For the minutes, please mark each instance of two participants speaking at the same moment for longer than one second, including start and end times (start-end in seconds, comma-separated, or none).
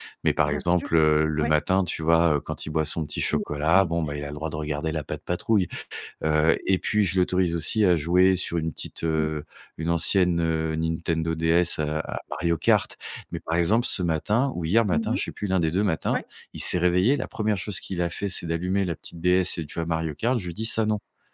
none